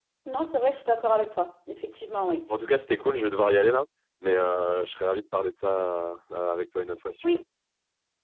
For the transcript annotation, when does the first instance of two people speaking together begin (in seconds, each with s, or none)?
none